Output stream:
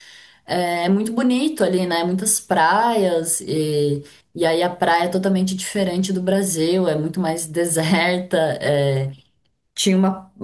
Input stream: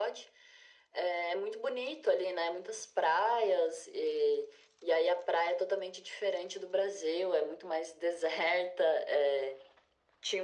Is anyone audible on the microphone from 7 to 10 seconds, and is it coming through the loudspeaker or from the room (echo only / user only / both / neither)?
echo only